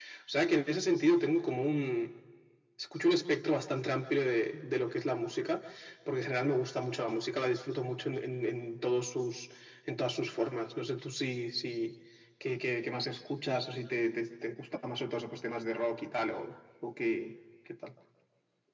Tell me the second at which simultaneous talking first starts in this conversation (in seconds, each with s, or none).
none